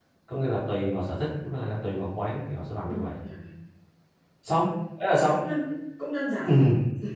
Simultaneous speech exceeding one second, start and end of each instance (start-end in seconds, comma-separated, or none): none